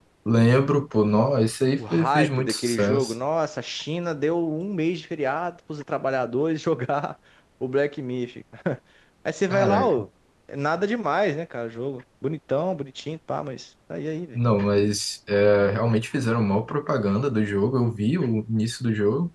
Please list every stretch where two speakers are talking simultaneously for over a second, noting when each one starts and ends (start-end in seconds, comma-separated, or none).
1.8-3.1